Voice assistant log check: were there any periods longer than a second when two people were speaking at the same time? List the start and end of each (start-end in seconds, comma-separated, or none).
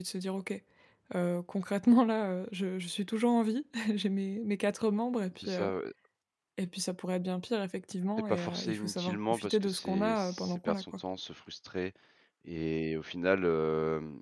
8.3-10.8